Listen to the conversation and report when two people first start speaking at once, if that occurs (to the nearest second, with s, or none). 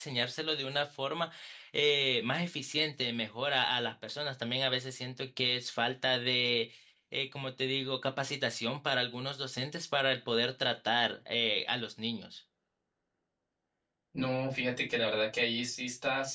none